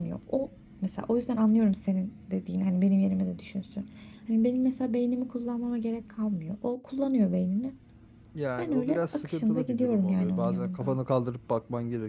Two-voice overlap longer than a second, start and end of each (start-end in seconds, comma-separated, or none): 8.6-11.0